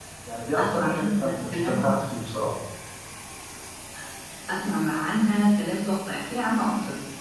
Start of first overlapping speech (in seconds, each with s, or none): 0.6 s